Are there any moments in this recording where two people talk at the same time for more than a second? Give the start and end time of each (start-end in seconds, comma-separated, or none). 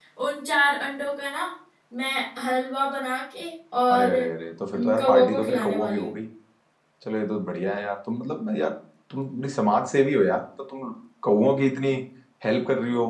4.7-6.2